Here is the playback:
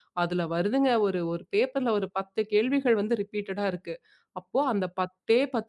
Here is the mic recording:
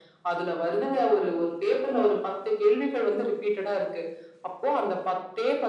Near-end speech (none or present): none